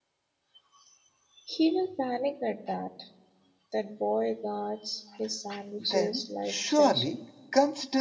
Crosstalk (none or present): present